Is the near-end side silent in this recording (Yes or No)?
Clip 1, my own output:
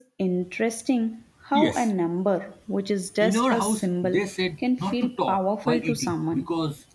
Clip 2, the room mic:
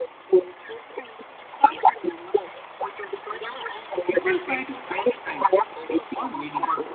No